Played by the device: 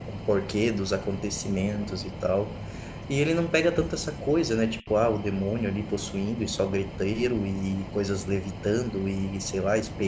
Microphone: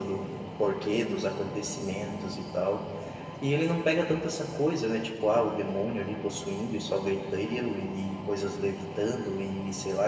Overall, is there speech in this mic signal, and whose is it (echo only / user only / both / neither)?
echo only